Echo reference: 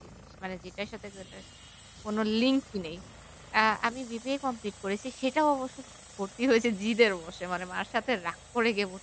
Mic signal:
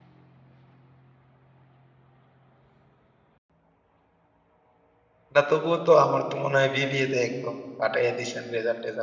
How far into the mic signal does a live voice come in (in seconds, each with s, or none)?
5.3 s